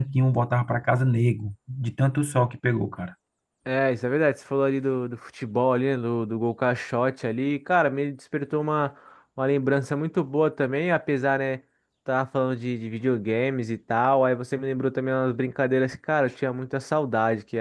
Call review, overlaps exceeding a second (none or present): none